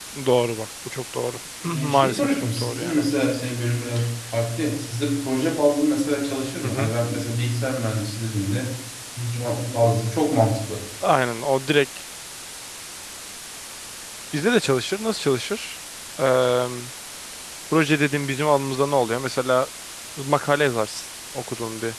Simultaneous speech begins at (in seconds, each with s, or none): 1.6 s